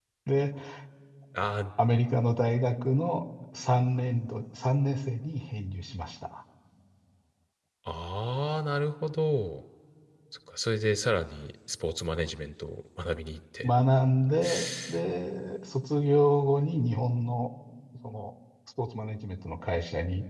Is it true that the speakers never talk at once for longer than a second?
Yes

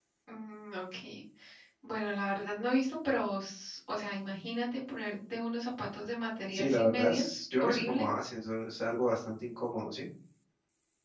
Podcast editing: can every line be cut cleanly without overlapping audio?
No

